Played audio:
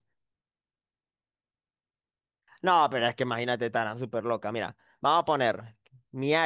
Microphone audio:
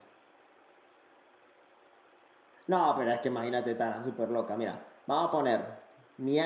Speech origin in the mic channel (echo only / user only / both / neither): echo only